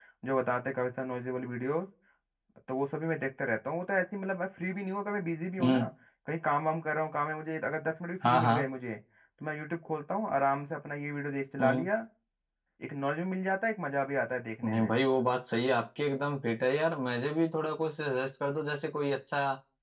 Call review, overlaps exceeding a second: none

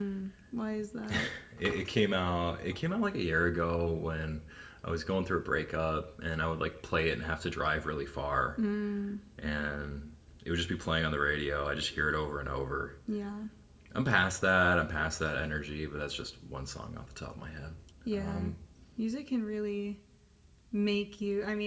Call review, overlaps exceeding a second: none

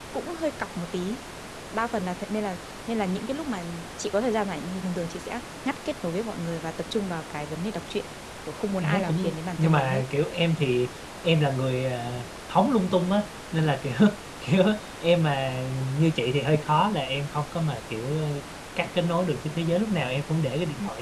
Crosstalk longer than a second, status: present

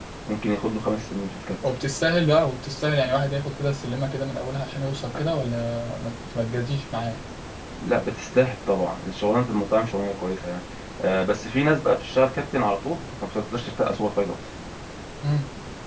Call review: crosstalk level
none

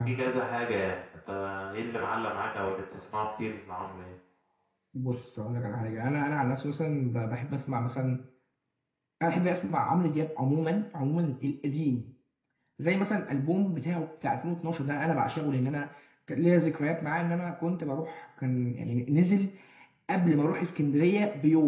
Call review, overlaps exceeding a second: none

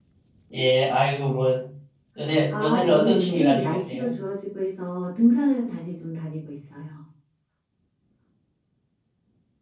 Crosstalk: present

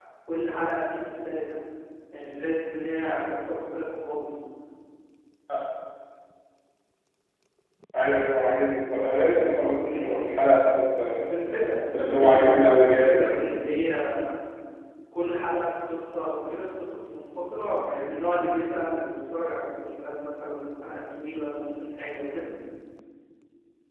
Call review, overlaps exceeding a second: present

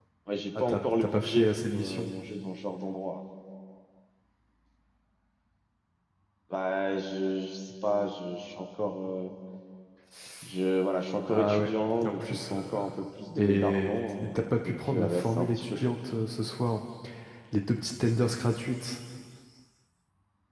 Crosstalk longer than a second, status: present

